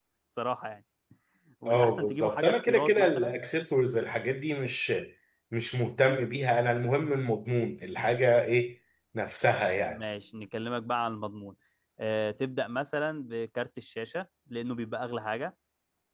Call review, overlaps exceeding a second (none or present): present